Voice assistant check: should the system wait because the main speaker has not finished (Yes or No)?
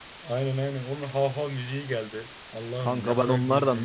No